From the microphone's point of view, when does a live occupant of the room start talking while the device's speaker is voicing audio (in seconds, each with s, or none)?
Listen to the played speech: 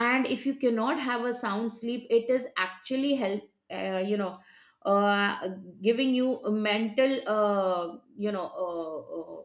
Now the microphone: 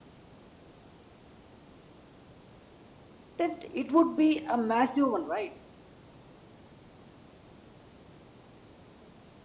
3.4 s